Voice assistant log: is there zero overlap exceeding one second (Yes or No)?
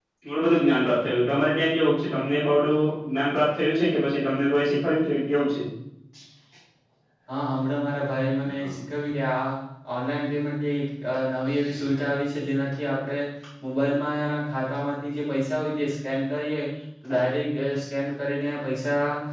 Yes